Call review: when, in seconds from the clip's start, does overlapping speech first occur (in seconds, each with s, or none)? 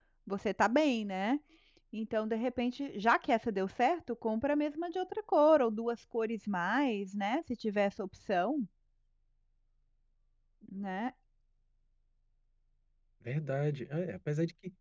none